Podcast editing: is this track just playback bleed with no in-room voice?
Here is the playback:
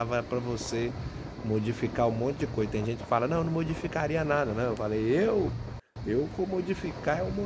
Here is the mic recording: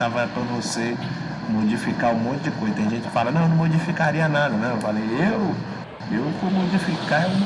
Yes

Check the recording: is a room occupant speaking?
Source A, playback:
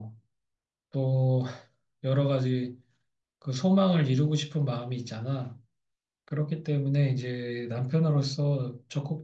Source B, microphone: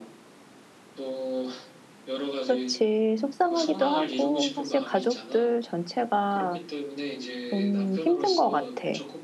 Yes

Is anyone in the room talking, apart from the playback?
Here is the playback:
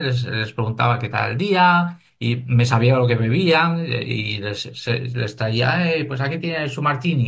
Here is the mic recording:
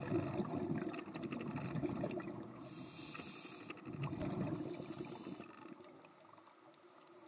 No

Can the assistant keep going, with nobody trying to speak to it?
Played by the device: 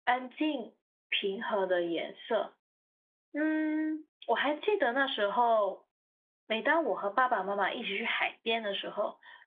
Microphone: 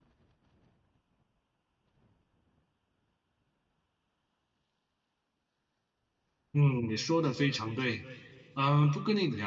No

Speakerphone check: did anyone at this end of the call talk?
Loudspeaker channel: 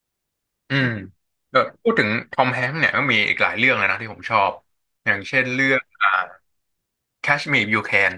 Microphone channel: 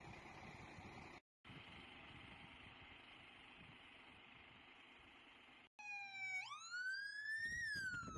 No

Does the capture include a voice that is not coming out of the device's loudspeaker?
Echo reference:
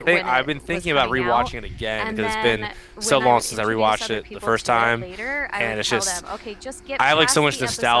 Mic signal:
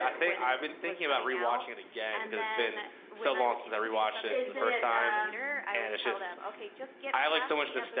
Yes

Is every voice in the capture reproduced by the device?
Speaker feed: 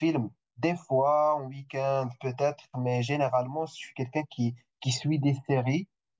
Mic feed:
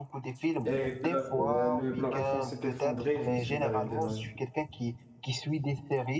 No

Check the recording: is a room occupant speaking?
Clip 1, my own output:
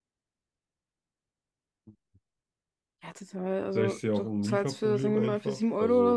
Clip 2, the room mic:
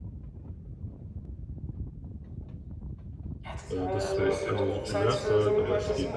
Yes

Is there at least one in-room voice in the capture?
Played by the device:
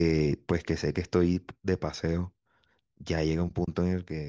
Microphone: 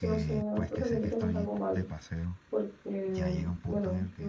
Yes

